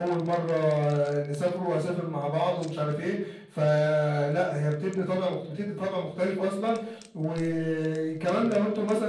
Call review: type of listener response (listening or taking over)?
listening